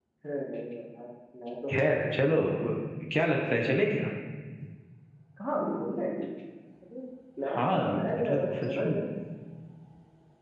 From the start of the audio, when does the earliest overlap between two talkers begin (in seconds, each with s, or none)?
7.4 s